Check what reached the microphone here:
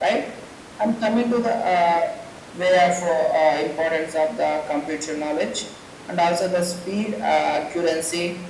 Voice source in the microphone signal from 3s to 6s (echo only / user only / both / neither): echo only